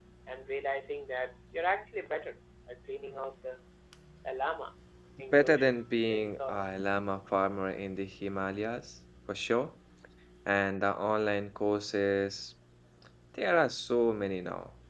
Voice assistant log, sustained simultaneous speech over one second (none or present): present